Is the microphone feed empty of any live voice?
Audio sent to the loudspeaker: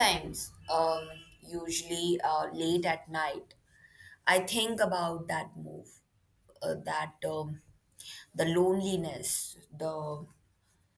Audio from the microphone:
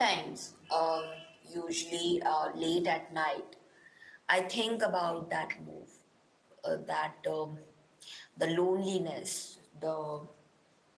No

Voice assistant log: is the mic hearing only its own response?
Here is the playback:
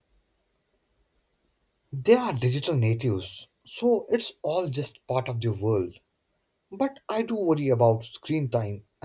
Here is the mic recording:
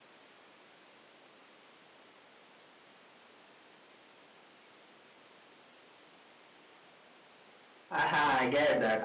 No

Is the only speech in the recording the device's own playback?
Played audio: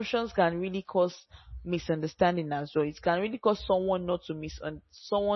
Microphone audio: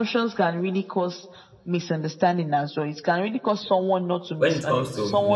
No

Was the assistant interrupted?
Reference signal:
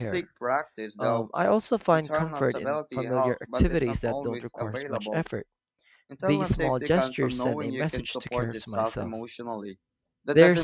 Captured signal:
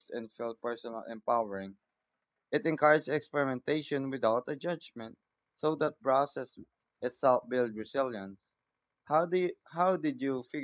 Yes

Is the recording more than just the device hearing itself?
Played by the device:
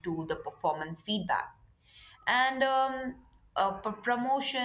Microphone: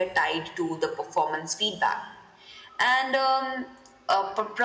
No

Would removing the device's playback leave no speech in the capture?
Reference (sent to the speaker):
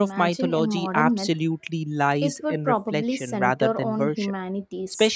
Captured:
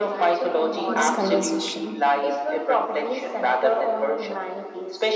No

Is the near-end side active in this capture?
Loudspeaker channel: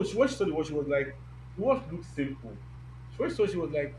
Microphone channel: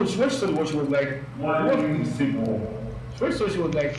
Yes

